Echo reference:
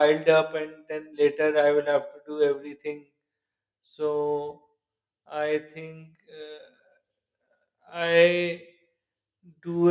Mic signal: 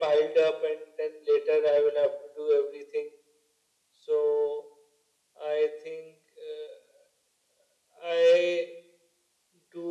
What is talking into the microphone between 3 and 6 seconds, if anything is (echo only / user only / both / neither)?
echo only